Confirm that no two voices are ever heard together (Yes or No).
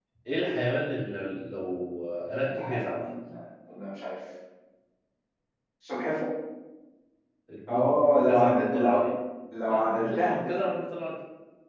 No